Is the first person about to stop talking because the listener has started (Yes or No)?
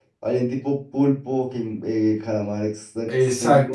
Yes